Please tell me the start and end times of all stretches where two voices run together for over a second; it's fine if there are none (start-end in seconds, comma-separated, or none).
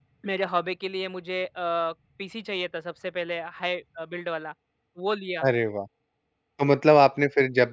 none